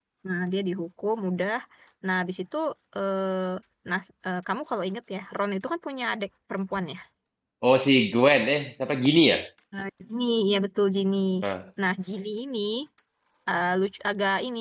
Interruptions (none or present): none